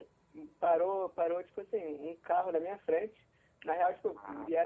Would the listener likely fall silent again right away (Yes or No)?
Yes